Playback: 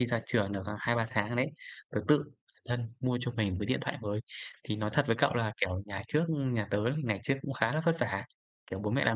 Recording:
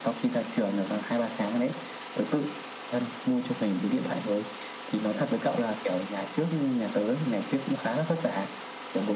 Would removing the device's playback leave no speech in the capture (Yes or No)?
Yes